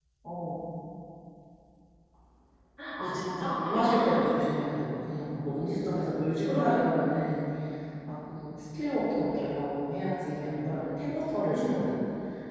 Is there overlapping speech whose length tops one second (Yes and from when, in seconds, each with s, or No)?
Yes, from 3.0 s